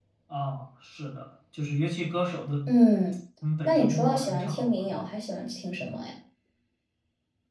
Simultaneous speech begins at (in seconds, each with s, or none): 3.6 s